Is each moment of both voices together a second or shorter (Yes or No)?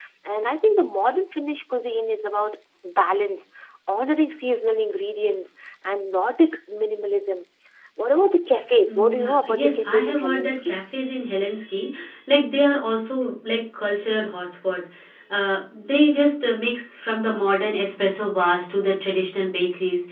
No